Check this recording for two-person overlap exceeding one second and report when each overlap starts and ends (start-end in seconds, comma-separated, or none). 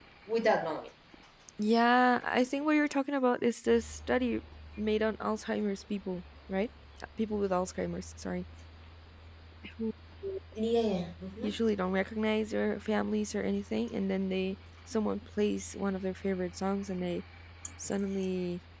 none